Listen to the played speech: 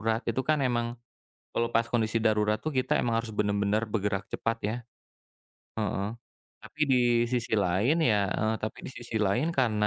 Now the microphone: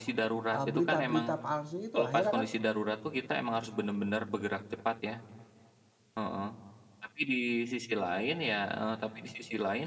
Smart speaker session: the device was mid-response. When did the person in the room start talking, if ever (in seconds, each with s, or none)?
0.5 s